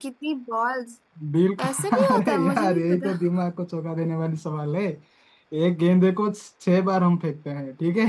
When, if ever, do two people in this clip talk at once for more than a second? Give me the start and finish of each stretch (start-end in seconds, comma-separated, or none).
1.7-3.1